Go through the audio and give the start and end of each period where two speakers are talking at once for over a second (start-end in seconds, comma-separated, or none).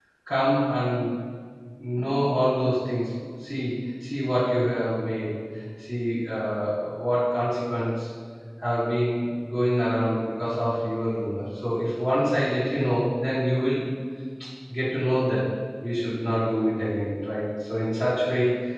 none